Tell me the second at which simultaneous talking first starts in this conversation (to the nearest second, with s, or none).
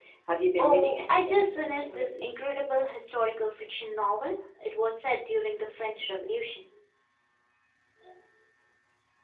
1 s